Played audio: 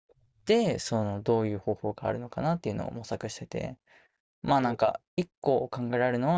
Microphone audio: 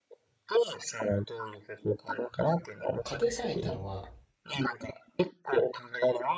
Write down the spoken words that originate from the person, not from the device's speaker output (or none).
家庭菜園っていうのは、